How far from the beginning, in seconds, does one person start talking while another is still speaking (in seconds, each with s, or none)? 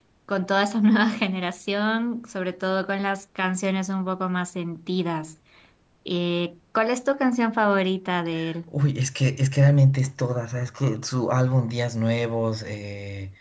none